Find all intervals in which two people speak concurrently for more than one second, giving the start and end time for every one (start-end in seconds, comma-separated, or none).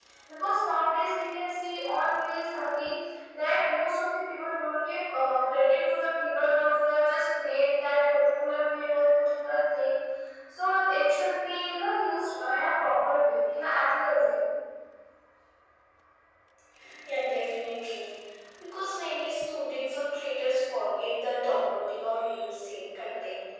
none